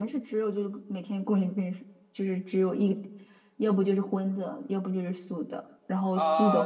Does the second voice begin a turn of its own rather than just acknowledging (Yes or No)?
Yes